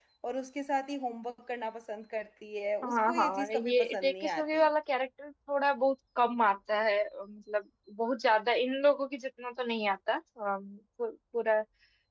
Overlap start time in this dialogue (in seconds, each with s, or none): 2.8 s